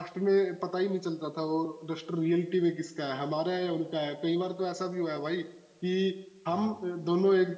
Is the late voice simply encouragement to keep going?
Yes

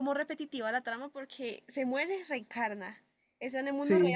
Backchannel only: No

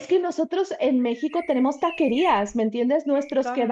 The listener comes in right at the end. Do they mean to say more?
No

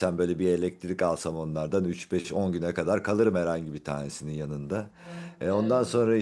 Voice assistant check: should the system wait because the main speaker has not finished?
Yes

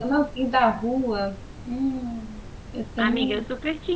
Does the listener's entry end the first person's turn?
Yes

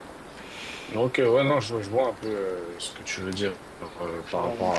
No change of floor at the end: Yes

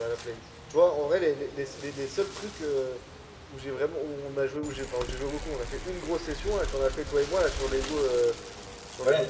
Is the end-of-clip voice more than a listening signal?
No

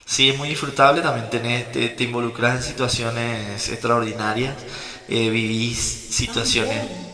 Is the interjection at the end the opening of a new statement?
No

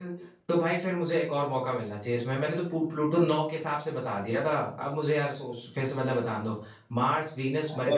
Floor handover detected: Yes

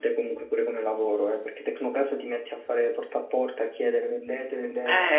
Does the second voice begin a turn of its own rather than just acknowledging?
Yes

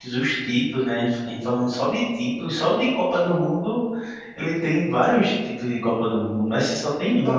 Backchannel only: No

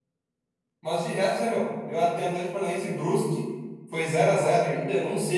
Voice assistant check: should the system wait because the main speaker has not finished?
Yes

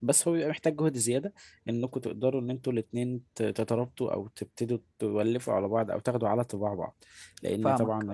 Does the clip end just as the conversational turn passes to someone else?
No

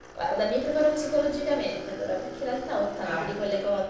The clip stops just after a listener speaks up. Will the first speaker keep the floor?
Yes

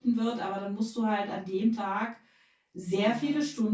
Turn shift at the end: No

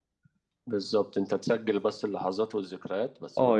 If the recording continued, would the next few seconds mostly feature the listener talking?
Yes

